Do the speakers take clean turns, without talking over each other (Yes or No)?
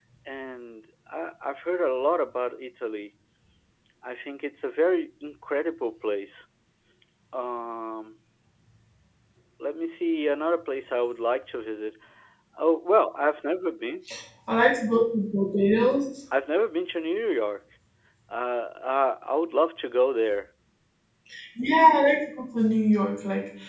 Yes